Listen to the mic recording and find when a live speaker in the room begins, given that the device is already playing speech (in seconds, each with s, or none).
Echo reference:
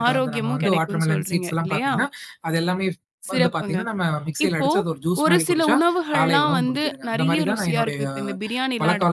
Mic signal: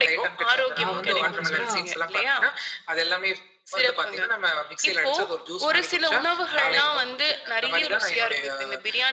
0.8 s